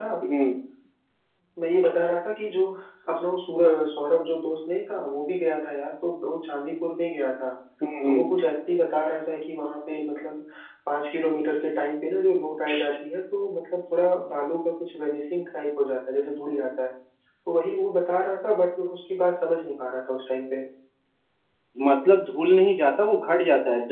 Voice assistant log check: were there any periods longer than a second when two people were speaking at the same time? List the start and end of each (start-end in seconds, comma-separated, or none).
none